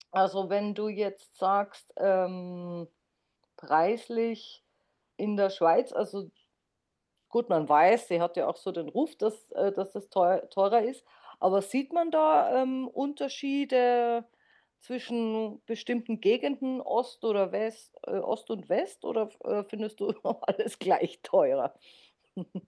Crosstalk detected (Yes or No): No